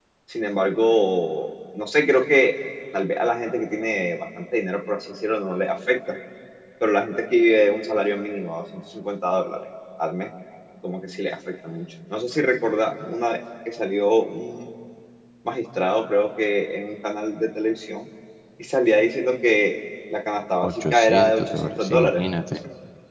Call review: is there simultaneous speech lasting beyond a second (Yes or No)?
Yes